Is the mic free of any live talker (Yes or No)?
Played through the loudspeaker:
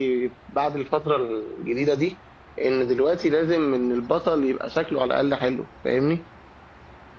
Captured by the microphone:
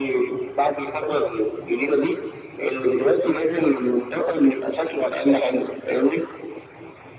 Yes